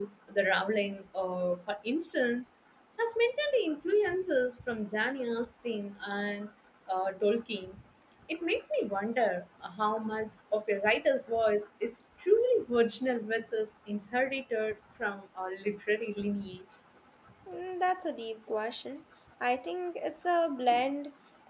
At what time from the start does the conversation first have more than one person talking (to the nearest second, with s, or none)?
none